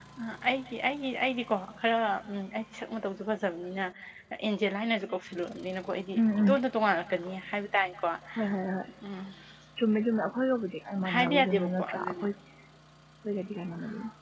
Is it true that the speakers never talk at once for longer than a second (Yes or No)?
No